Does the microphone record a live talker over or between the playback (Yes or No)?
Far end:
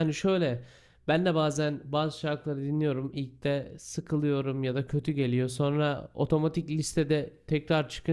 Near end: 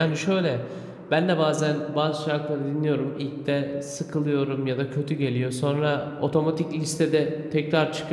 No